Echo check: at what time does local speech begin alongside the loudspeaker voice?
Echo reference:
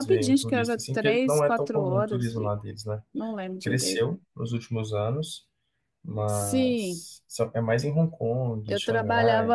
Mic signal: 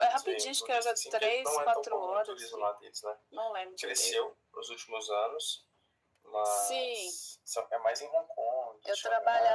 none

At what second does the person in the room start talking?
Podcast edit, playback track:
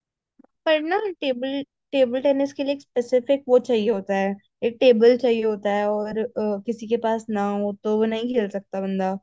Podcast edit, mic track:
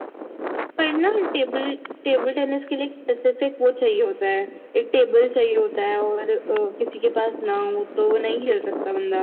none

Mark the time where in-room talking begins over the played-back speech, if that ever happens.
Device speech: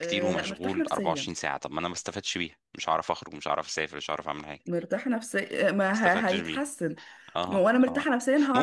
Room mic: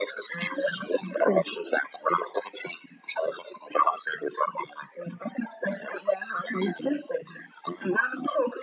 none

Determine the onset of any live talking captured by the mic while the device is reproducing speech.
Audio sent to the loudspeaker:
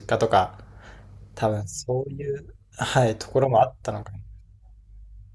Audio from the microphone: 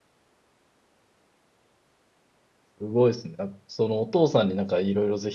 2.8 s

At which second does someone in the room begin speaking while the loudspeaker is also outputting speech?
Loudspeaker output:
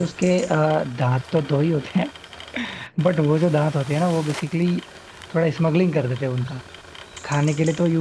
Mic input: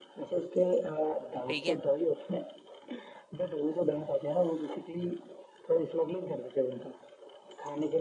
1.5 s

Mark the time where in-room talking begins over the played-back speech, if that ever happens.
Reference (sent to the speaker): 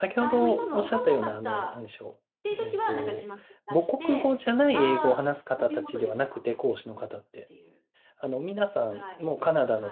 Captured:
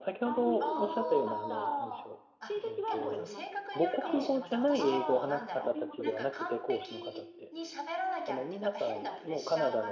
0.6 s

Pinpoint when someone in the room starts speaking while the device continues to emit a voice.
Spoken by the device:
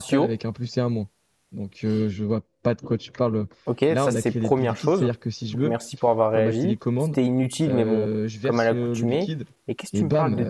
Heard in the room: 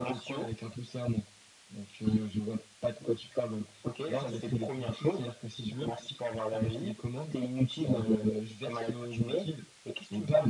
none

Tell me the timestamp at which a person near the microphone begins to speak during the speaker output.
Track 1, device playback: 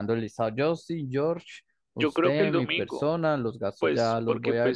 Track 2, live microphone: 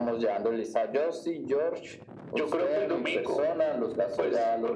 none

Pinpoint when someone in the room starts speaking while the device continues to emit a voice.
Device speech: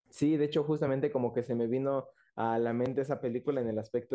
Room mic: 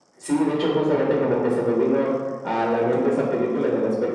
none

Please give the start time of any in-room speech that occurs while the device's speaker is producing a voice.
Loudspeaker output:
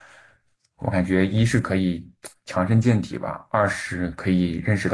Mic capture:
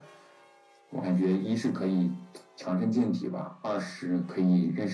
none

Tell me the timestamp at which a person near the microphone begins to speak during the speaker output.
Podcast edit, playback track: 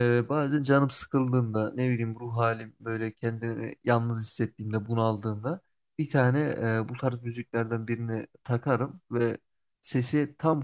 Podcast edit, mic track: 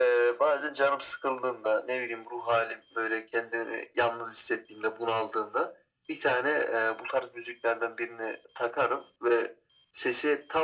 none

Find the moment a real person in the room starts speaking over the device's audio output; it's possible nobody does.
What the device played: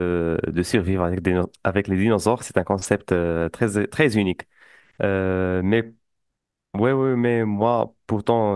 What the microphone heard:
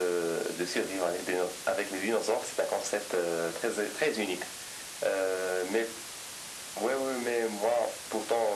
none

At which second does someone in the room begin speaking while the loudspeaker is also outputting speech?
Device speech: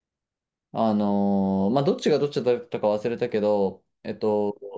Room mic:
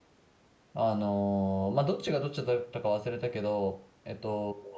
none

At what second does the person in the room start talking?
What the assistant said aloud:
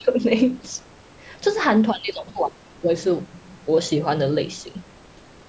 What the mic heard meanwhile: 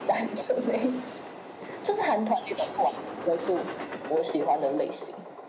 none

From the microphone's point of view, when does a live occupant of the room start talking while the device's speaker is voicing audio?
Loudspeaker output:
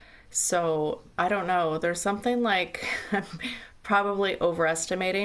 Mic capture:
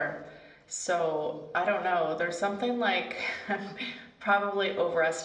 none

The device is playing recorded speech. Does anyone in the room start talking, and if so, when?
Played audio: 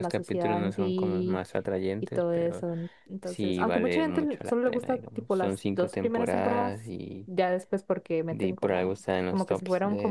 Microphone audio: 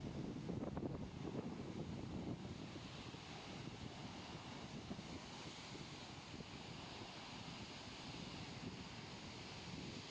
none

